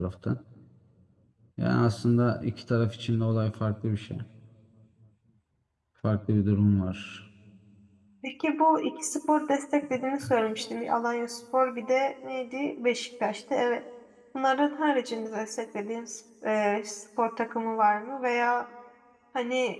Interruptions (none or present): none